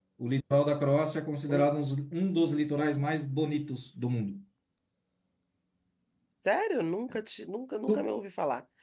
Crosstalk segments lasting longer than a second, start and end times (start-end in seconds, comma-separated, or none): none